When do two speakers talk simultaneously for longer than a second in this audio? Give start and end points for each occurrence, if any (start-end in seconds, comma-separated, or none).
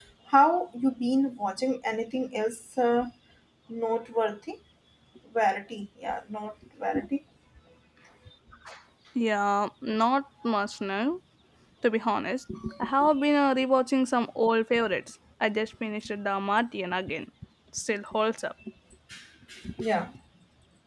none